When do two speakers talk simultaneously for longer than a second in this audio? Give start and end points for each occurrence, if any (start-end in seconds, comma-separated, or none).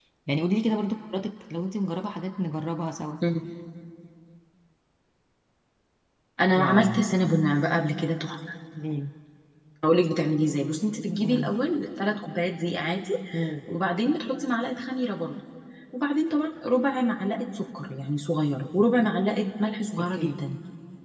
none